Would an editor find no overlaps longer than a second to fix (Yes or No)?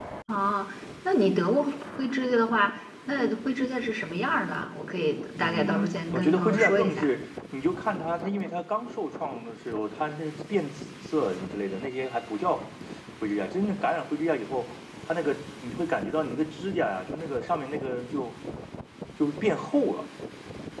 No